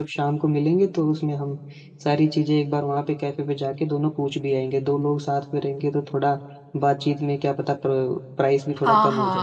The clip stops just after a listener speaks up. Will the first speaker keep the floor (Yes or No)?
No